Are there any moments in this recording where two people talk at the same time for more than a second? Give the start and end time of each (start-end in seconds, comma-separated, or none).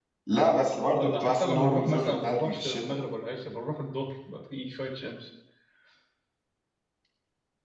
0.9-2.8